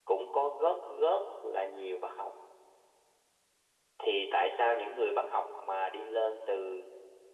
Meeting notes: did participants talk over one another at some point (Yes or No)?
No